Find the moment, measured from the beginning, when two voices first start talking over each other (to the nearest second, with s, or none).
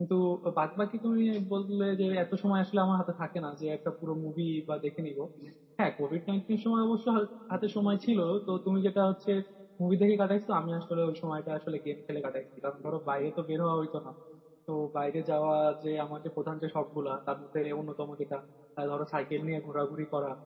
none